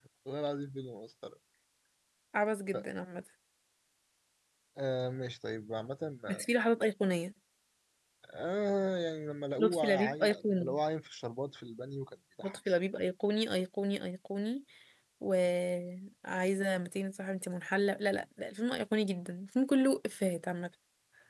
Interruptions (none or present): present